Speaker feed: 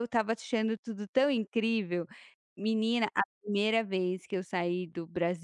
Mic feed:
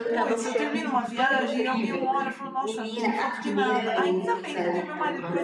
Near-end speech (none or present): present